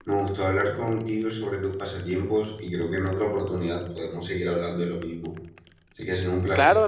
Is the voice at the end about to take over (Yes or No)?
Yes